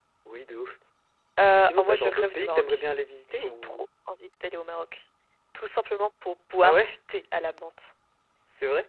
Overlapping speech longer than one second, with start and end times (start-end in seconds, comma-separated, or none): 1.6-2.8